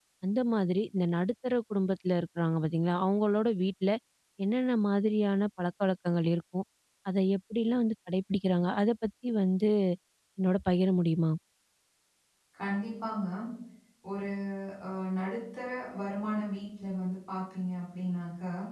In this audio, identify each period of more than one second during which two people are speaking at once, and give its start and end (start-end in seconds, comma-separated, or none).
none